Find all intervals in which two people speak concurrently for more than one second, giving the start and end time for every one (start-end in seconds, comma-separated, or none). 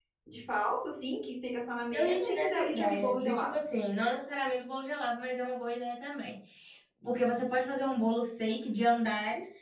1.9-3.5